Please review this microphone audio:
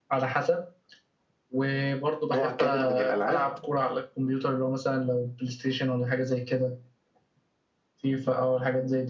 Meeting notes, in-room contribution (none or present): present